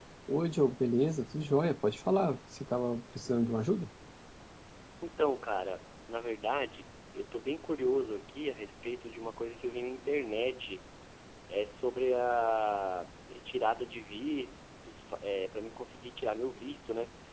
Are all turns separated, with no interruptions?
Yes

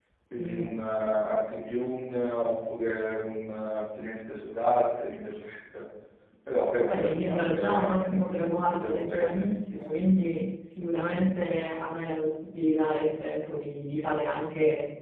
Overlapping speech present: Yes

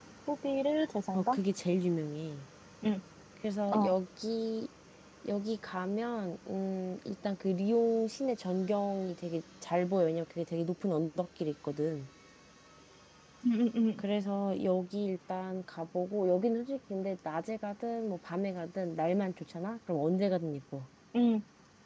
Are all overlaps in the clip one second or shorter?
Yes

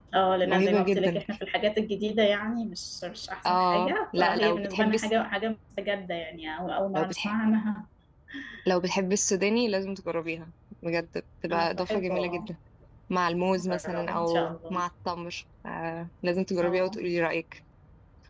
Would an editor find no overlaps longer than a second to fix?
No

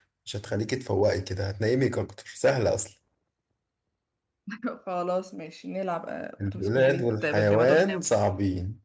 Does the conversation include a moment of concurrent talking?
Yes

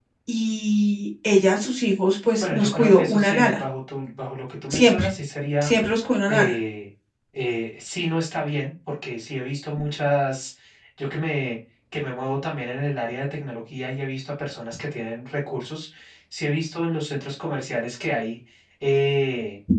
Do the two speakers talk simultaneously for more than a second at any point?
Yes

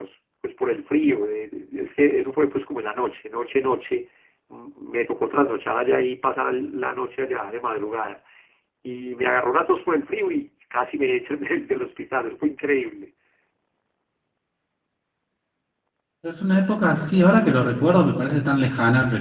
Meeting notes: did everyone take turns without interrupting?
Yes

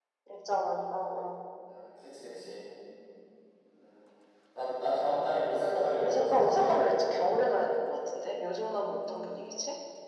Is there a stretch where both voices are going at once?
Yes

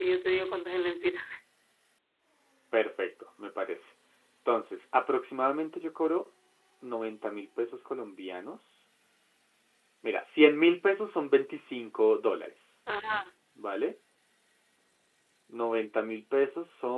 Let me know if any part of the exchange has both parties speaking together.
No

